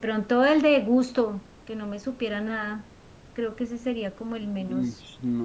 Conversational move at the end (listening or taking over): taking over